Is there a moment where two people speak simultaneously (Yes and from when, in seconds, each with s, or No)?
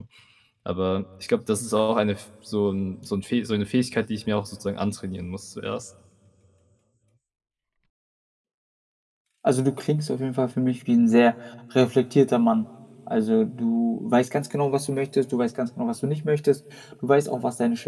No